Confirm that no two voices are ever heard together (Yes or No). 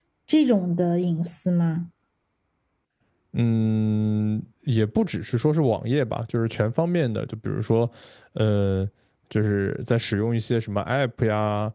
Yes